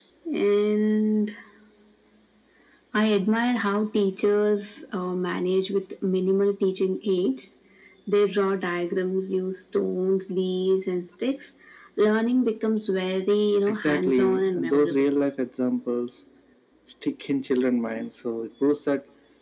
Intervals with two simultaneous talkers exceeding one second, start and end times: 13.7-15.0

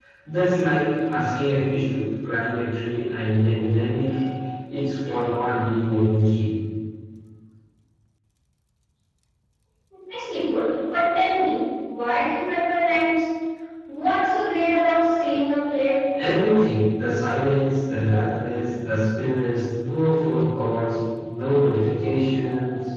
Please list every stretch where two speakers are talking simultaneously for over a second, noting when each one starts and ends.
none

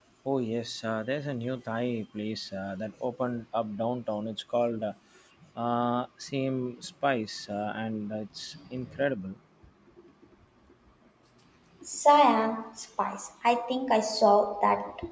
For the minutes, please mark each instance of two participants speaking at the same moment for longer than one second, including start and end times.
none

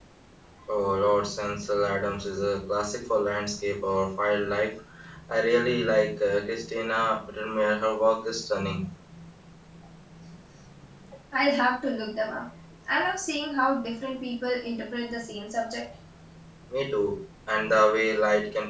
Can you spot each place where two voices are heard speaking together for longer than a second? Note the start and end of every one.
none

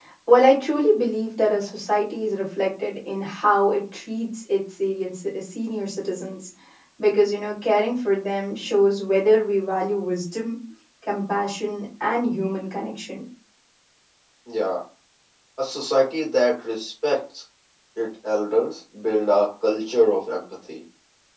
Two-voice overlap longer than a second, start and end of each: none

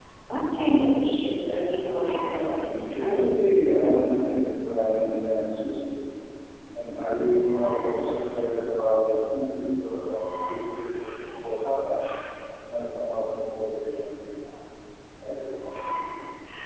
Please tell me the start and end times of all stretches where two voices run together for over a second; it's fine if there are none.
2.1-3.3

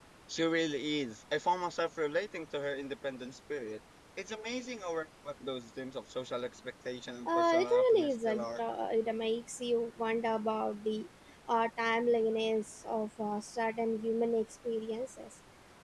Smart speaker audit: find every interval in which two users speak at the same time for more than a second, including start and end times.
7.3-8.6

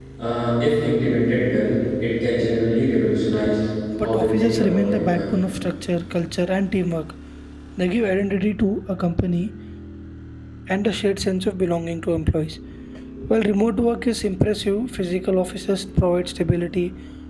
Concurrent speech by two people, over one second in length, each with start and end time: 4.0-5.4

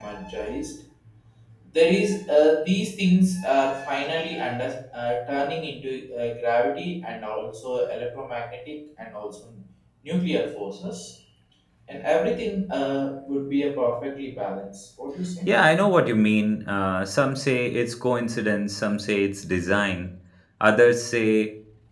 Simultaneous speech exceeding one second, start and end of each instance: none

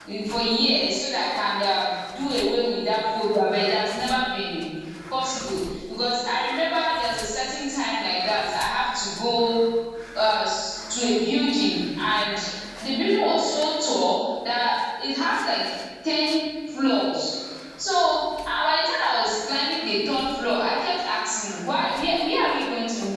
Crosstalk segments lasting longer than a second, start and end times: none

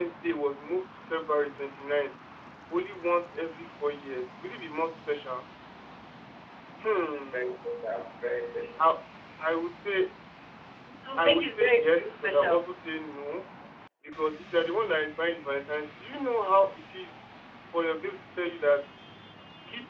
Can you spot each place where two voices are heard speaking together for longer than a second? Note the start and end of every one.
11.2-12.6

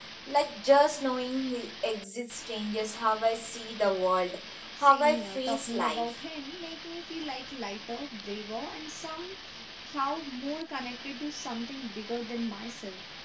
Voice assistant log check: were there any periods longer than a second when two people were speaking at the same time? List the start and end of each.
4.8-6.0

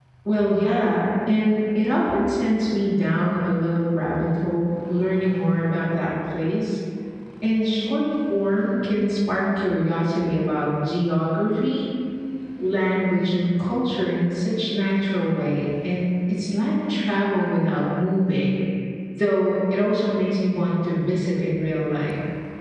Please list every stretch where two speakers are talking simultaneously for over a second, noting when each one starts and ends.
none

